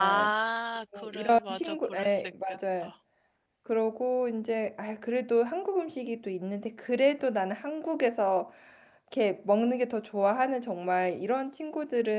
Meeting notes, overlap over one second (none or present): present